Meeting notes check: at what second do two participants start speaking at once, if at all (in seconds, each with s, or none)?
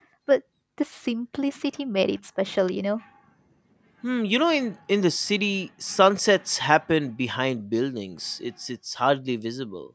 none